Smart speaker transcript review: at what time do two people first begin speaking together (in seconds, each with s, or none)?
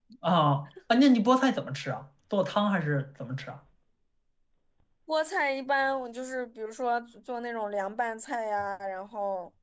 none